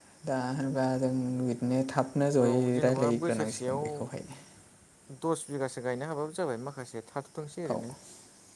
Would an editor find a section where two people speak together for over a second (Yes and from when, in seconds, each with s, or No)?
Yes, from 2.4 s